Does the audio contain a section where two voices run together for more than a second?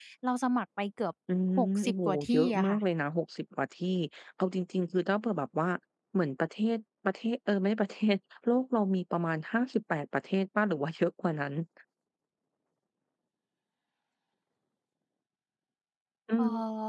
Yes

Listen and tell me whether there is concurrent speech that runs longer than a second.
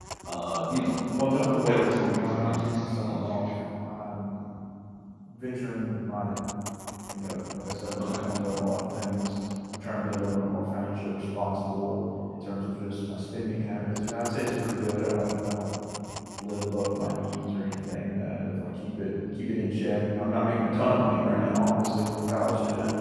Yes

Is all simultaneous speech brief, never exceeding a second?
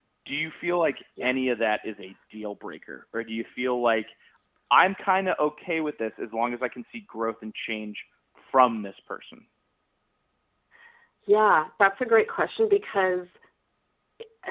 Yes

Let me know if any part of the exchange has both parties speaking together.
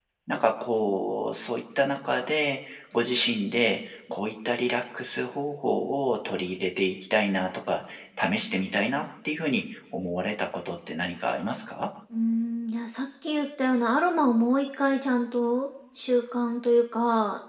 No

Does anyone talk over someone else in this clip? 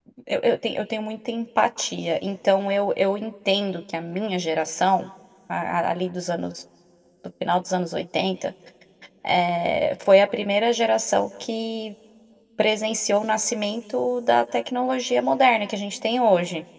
No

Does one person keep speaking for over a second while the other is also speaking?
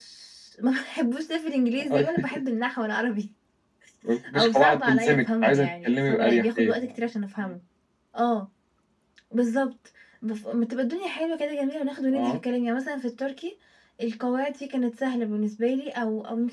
Yes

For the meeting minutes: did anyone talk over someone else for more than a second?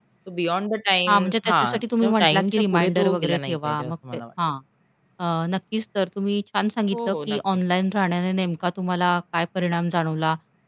Yes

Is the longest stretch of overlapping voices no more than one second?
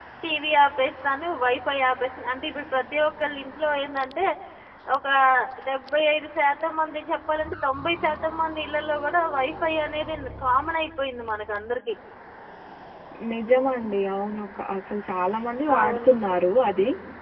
Yes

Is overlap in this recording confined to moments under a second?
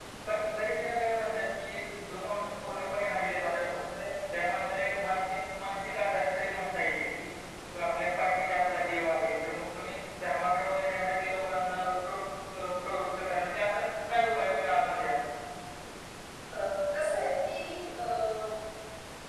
Yes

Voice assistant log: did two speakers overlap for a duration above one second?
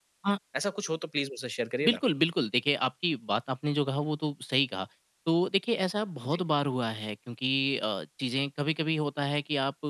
No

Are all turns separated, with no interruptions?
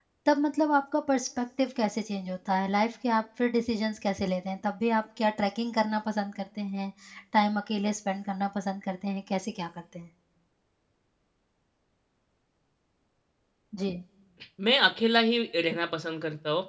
Yes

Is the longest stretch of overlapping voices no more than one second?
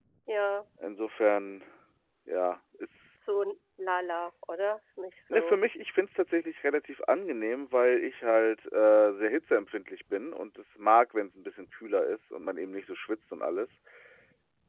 Yes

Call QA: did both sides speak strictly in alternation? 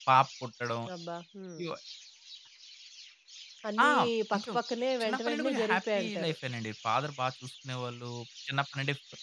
No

